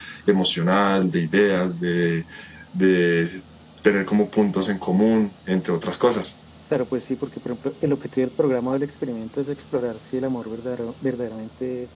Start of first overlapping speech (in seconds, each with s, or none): none